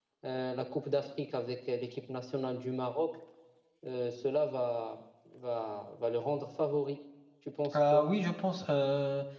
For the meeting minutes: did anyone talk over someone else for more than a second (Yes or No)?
No